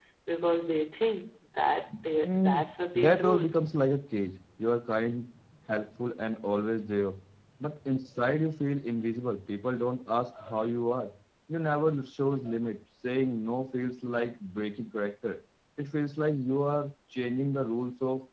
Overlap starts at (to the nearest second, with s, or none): 2 s